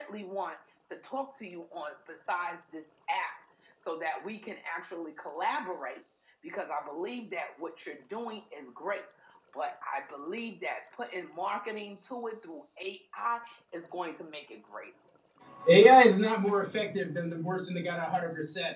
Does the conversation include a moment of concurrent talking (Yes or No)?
No